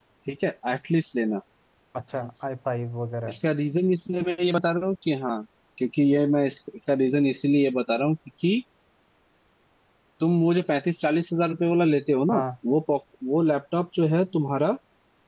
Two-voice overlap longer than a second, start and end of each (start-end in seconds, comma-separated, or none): none